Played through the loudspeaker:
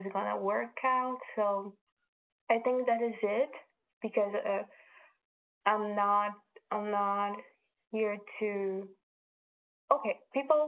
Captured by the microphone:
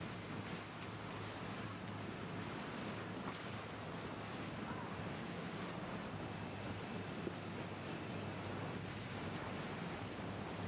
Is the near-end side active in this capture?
No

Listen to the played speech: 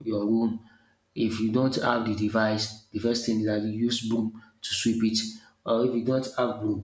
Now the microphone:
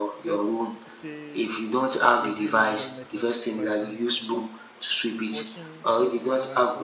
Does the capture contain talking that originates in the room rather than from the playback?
Yes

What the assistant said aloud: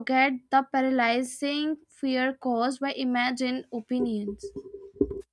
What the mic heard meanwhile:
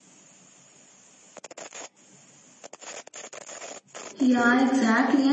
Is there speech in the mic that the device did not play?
Yes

